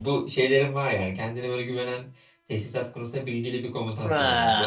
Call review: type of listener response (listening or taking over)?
taking over